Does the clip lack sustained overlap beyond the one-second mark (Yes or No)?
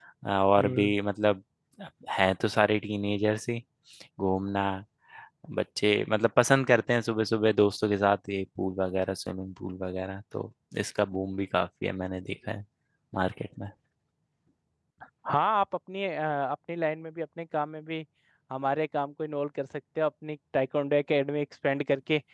Yes